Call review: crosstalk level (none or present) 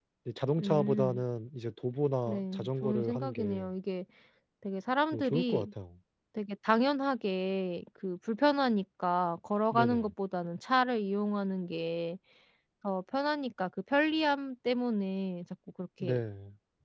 present